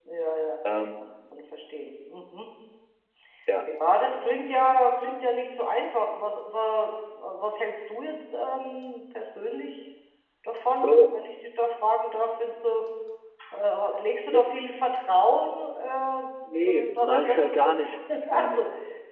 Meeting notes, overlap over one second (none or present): present